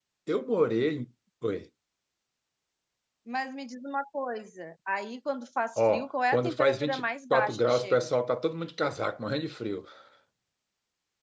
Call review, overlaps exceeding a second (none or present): present